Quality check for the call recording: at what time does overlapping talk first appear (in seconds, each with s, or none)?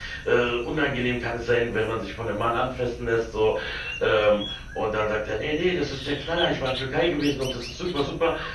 none